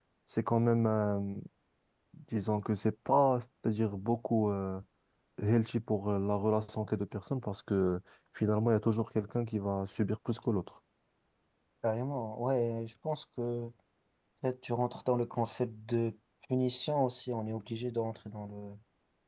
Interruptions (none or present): none